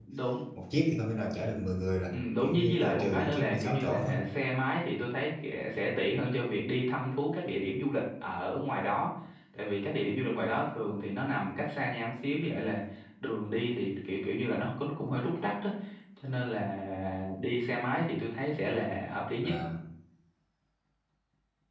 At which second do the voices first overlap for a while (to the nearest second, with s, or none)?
2 s